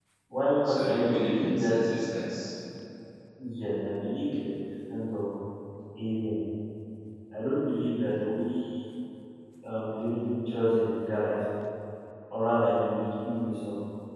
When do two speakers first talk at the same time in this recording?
0.6 s

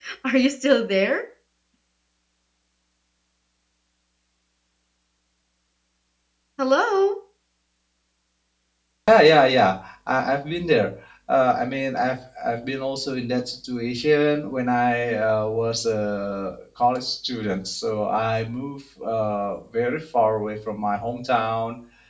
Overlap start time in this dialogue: none

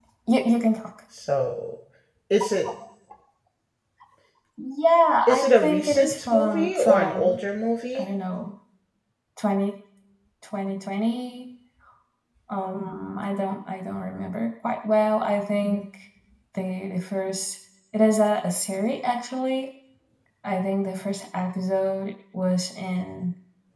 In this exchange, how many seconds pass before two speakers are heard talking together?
5.3 s

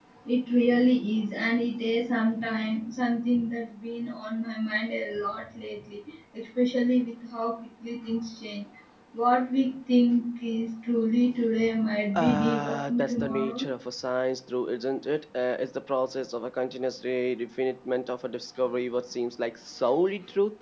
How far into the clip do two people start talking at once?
12.1 s

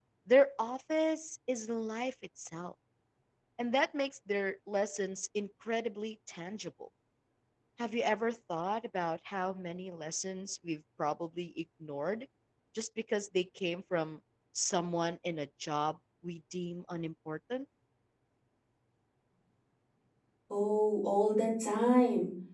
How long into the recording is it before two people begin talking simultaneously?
none

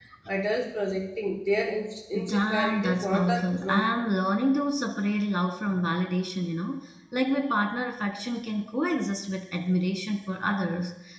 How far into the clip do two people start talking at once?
2.1 s

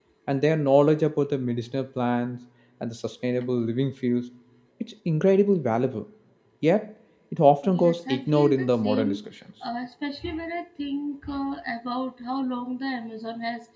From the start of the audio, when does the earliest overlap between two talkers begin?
7.6 s

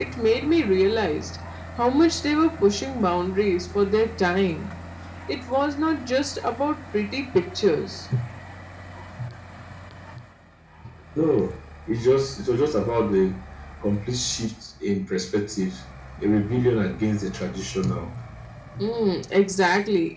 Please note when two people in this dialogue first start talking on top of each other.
none

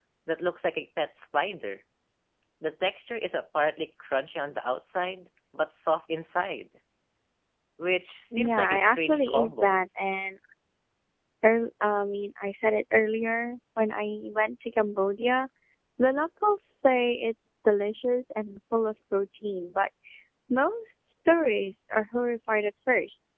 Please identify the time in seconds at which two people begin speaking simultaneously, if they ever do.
8.3 s

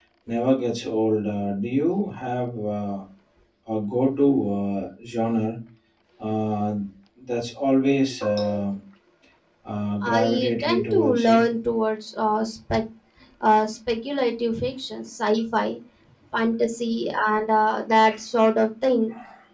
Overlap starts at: 10.0 s

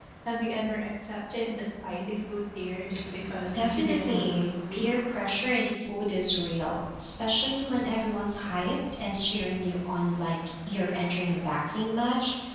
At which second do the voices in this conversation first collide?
3.5 s

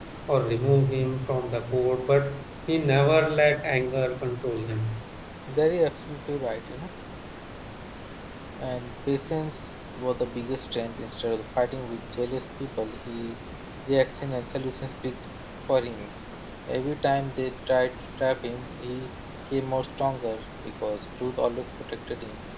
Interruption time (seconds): none

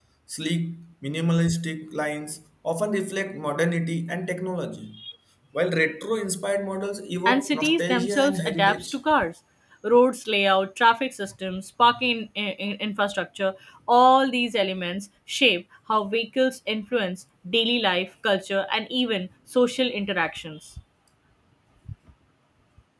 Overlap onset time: 7.2 s

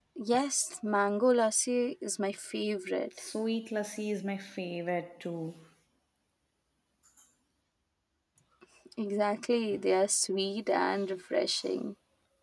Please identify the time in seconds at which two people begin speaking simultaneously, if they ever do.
none

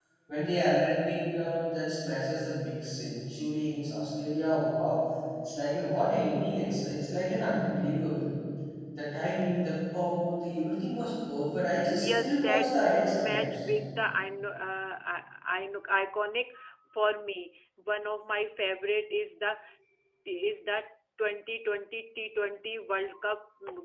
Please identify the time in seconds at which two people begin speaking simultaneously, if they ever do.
11.8 s

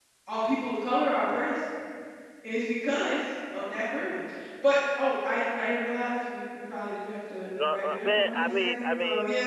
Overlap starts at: 7.5 s

